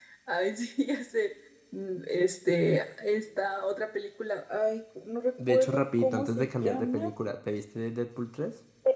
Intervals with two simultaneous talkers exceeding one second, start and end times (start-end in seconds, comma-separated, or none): 5.5-7.1